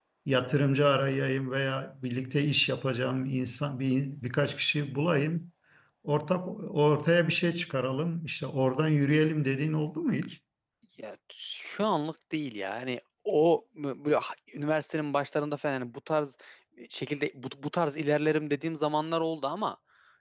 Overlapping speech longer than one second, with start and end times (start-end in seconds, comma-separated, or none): none